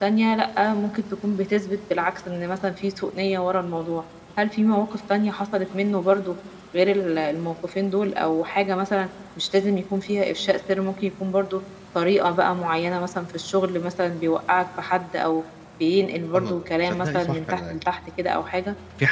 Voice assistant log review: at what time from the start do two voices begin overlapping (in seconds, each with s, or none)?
16.4 s